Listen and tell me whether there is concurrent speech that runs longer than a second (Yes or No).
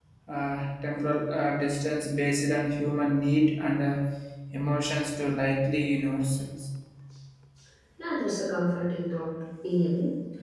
No